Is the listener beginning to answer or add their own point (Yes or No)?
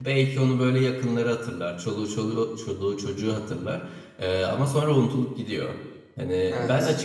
No